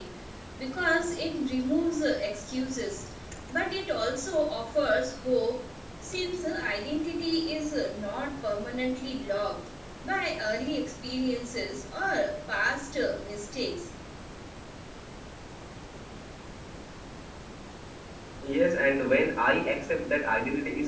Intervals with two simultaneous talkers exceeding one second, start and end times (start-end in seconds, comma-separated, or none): none